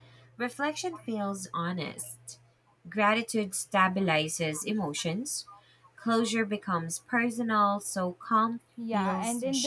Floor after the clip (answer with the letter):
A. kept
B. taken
B